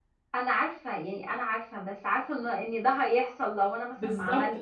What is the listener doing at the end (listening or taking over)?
taking over